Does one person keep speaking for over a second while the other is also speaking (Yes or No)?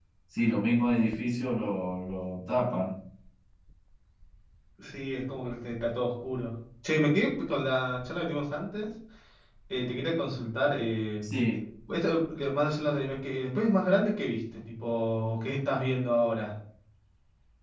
No